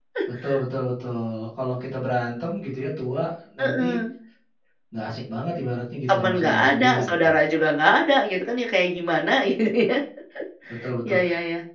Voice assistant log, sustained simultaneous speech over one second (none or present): present